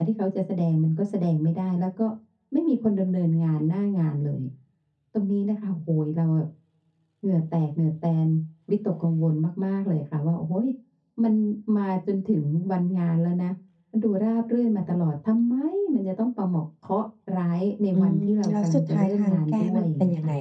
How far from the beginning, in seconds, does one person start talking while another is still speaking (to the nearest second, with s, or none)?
18 s